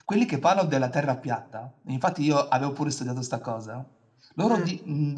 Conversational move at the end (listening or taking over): listening